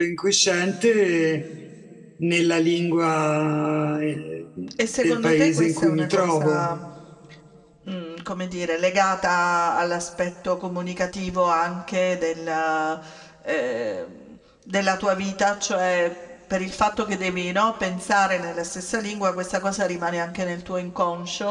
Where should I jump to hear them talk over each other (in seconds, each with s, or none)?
5.0 s